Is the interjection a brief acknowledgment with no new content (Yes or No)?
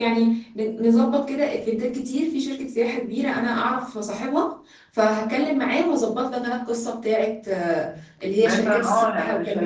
No